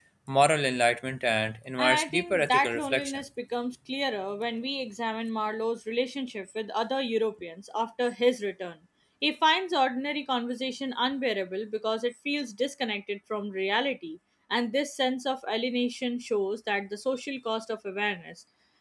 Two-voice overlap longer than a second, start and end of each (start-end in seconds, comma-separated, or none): 1.8-3.2